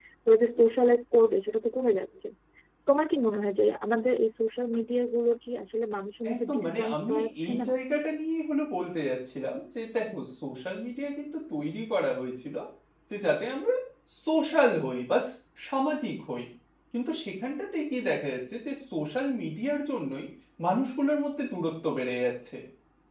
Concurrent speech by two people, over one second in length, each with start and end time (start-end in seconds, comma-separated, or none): 6.3-7.7